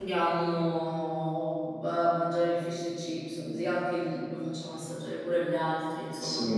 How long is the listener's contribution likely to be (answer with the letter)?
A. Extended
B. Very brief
A